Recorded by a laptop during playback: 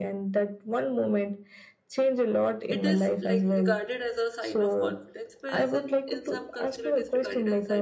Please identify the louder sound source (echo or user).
echo